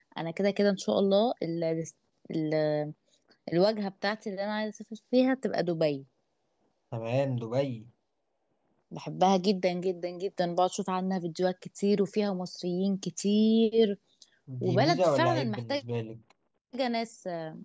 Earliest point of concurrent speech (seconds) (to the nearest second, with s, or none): 15 s